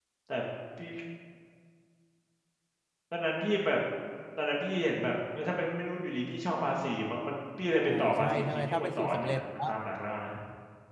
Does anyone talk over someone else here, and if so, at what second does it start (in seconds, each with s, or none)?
7.8 s